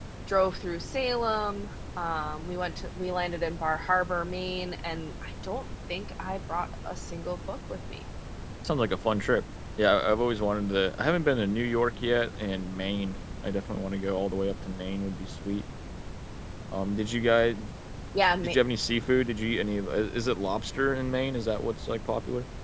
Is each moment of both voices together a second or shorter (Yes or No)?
Yes